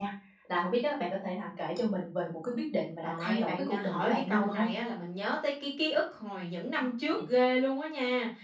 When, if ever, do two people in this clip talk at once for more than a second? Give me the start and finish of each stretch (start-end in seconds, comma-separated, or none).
3.0-4.7